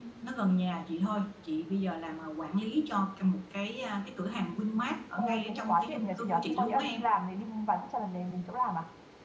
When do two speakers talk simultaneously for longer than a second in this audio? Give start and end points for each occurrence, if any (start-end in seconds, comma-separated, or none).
5.2-7.0